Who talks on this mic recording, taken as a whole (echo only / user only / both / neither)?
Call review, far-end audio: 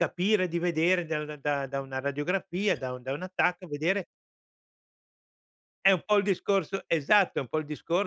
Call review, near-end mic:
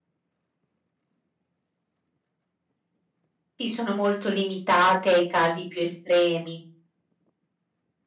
user only